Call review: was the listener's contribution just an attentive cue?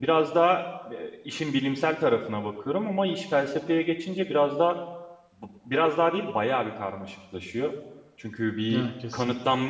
Yes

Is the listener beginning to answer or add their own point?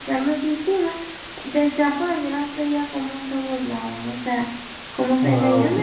Yes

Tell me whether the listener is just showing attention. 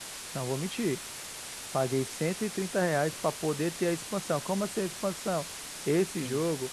Yes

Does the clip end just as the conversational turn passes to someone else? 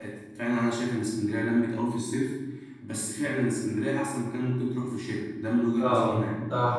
Yes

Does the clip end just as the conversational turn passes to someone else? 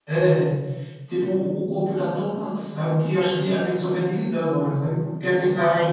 Yes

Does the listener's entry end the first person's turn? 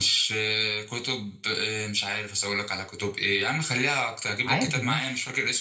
No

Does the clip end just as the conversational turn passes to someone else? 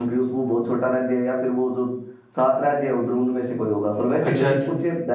Yes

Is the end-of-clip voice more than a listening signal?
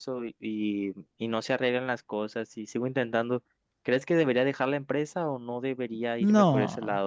Yes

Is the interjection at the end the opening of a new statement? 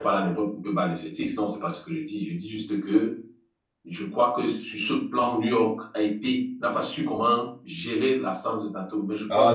Yes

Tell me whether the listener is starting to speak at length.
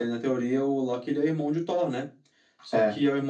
No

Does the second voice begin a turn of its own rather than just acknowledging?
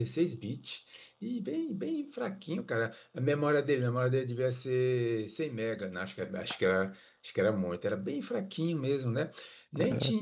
No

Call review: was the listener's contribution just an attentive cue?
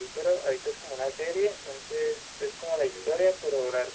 Yes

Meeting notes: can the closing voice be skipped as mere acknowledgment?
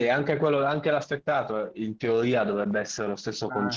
Yes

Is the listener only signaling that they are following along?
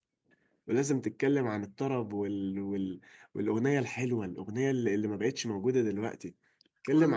Yes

